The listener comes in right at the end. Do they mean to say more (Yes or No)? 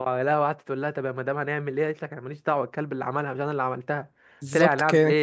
No